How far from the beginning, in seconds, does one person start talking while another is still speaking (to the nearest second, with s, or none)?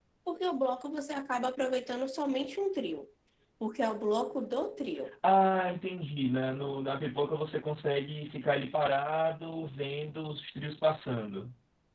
none